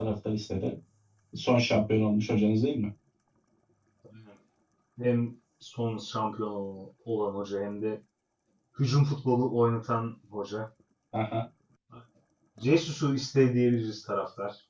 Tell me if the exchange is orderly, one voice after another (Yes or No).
Yes